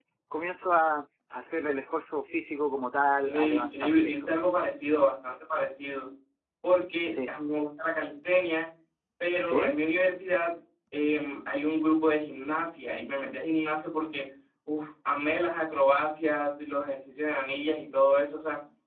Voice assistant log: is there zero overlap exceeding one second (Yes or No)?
No